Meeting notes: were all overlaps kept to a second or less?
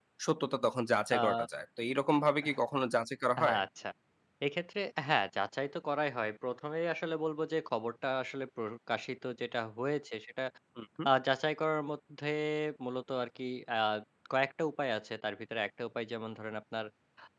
Yes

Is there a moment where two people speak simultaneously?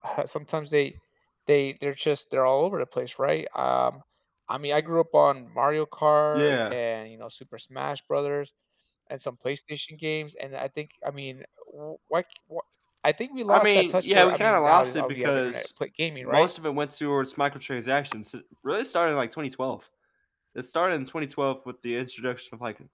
Yes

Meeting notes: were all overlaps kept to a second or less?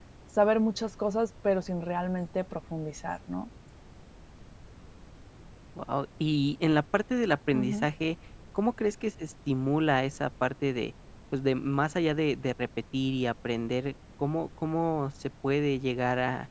Yes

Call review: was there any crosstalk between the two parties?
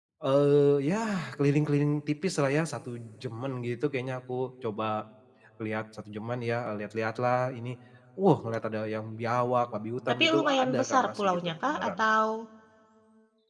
Yes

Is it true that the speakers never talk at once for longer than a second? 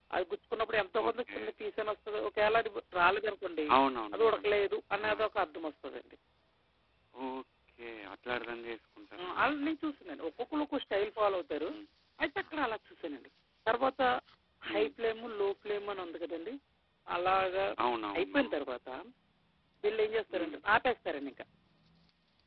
Yes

